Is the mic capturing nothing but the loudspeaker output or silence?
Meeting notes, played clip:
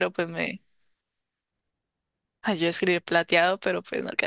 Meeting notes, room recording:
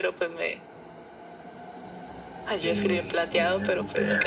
No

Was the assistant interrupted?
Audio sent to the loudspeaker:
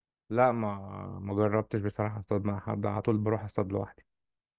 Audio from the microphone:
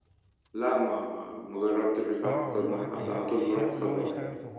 Yes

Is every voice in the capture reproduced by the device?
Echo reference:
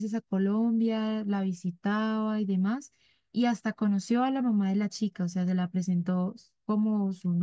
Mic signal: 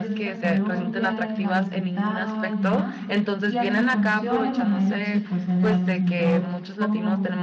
No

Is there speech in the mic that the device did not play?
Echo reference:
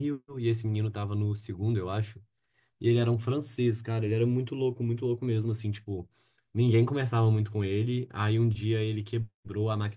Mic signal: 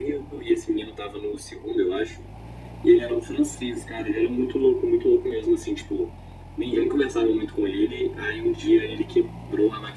No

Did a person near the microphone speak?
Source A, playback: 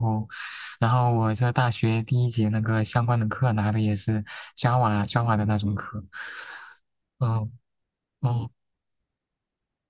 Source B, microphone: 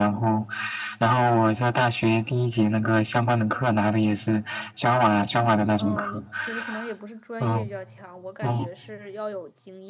Yes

